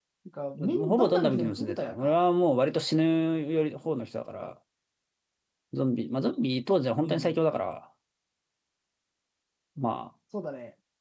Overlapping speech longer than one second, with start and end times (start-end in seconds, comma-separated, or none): 0.6-2.1